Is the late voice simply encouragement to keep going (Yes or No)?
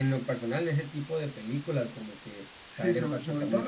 No